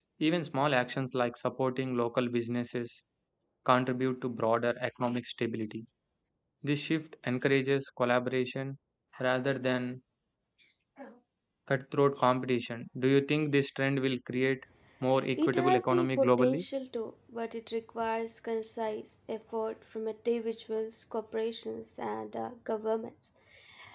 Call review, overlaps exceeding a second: present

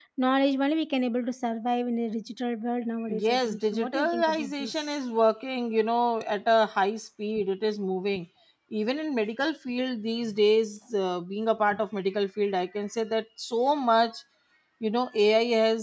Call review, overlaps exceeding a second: present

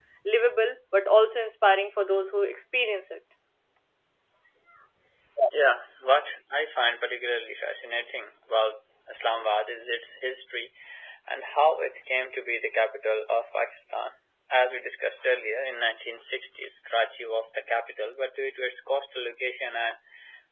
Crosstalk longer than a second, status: none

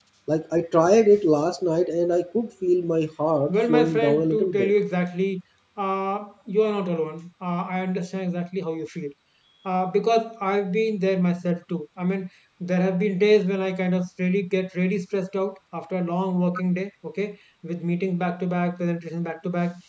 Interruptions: present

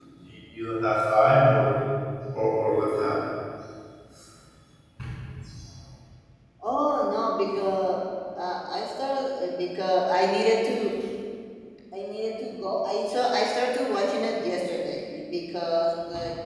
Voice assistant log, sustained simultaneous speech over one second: none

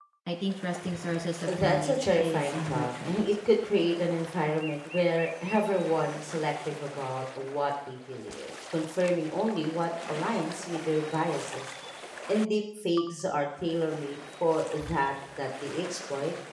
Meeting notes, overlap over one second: present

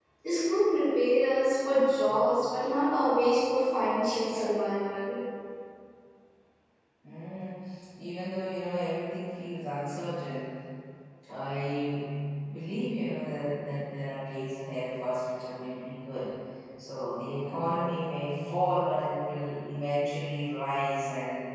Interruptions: none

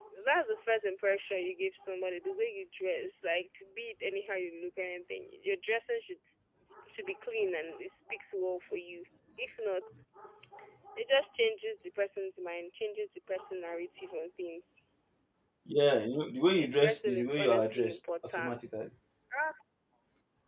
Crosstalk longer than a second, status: present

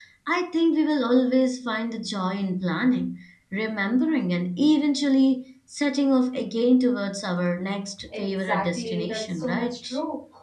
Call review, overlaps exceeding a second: present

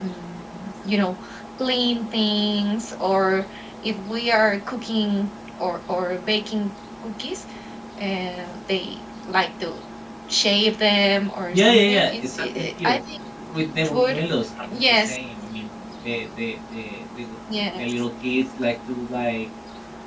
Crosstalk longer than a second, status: present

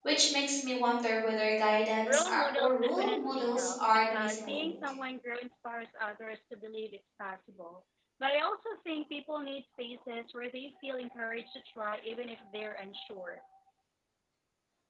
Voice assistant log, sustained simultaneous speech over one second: present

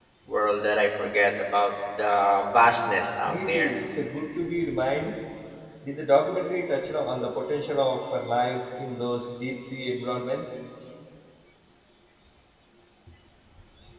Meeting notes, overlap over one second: none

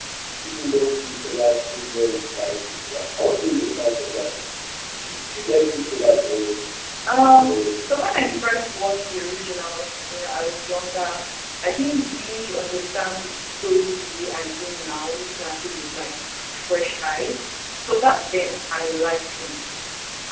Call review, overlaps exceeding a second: present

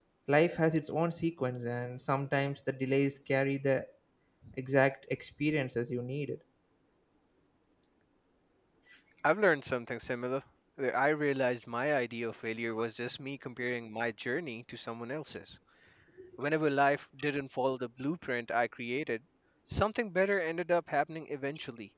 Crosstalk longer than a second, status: none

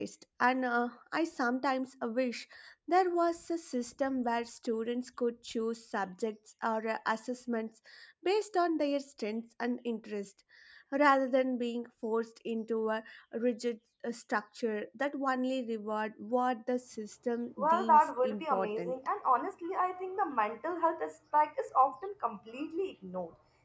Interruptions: present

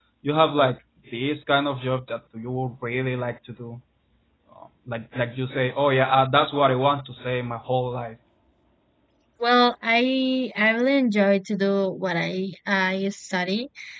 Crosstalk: none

